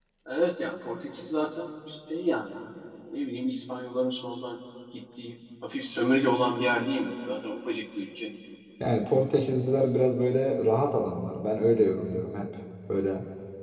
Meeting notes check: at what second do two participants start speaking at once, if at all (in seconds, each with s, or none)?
none